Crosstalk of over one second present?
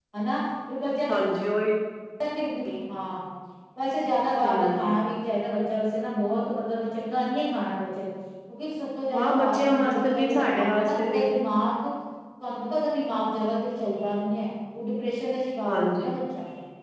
Yes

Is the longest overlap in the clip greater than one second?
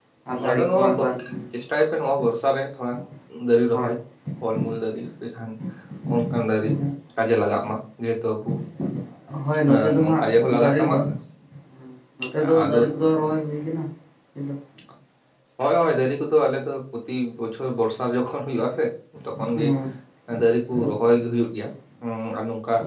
Yes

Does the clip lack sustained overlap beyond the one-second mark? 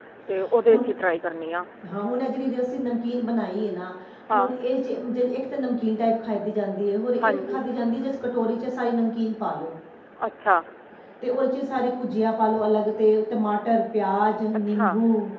Yes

